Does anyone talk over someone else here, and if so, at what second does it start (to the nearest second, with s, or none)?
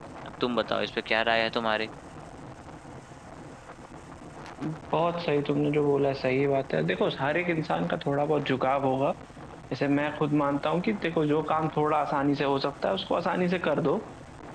none